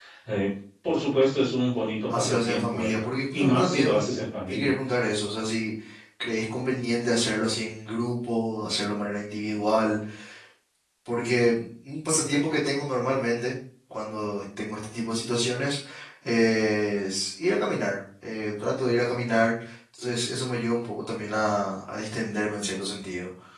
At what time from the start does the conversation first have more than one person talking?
2 s

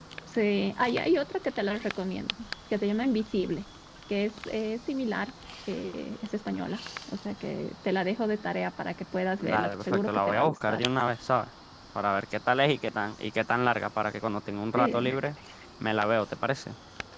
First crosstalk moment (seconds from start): 9 s

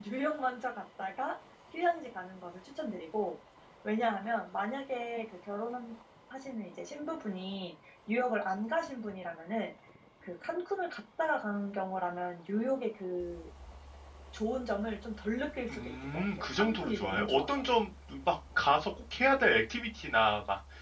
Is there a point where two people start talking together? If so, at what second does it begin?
16 s

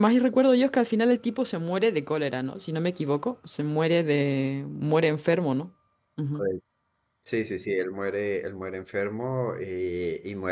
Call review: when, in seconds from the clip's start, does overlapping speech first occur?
none

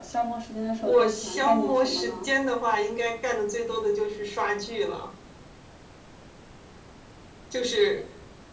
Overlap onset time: 1 s

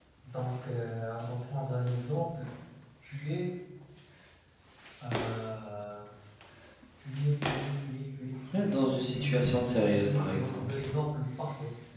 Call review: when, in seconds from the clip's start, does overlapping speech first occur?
9 s

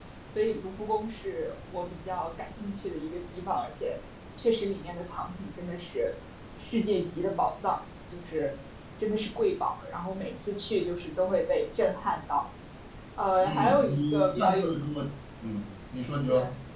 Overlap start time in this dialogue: 13 s

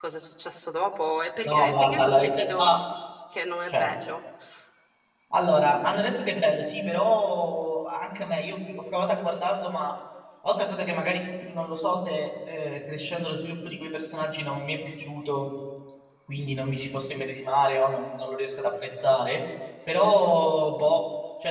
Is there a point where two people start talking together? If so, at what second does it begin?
1 s

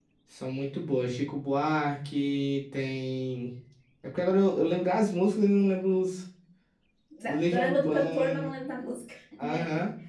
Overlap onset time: 7 s

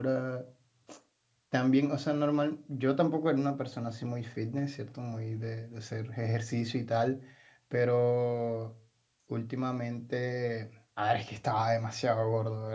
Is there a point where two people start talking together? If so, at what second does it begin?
none

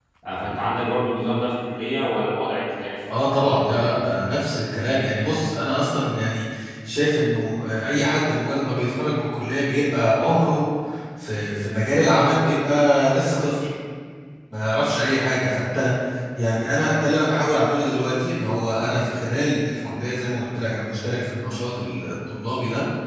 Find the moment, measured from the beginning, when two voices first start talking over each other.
none

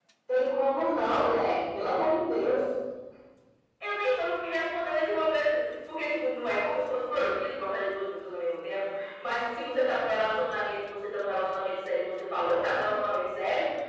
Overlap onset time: none

